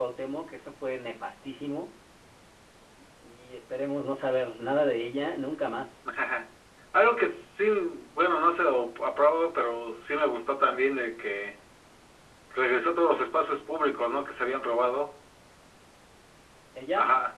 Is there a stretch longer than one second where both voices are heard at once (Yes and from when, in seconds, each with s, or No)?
No